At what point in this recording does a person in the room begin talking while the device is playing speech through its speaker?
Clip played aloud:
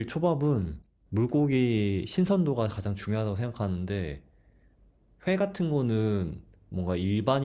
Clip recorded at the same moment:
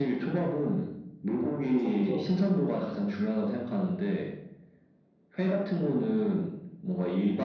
1.6 s

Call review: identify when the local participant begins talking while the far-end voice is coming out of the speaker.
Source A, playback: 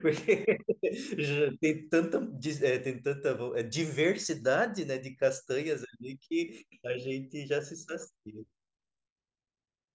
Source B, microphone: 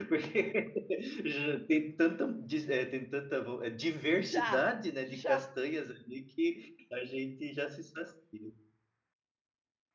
4.2 s

